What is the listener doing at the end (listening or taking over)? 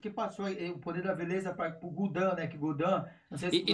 taking over